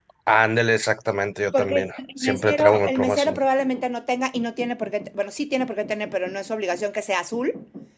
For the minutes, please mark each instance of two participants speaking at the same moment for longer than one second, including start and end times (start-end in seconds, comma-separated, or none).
1.5-3.4